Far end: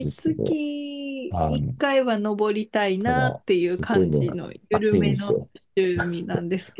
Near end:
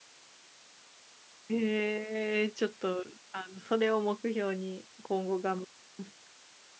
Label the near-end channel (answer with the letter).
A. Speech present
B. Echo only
A